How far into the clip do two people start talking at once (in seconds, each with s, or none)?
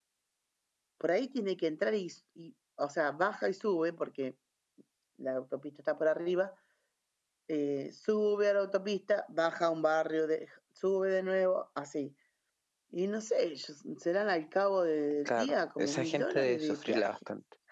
15.2 s